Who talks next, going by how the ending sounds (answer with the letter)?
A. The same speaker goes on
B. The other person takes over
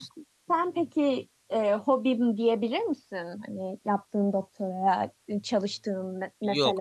B